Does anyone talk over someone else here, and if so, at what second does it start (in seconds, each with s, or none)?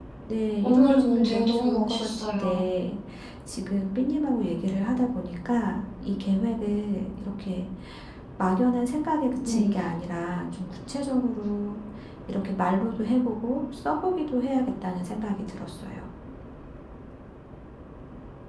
0.6 s